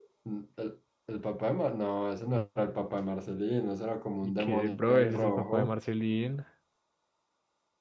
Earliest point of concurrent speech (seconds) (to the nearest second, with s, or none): 4 s